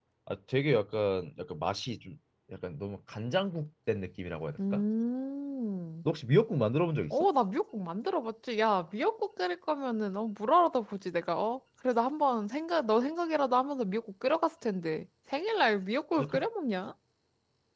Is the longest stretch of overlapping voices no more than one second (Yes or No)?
Yes